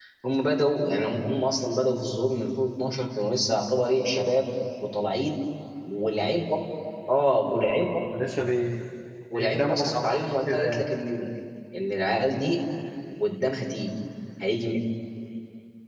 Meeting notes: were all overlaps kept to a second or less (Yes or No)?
No